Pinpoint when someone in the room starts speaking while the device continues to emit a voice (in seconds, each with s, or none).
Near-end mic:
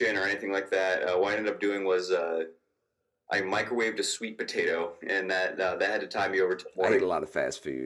6.8 s